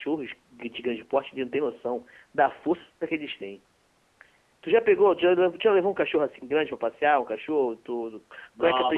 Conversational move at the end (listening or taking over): taking over